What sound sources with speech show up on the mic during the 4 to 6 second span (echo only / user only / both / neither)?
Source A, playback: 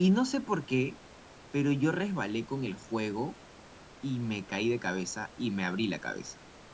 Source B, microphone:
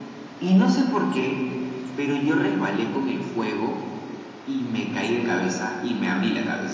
echo only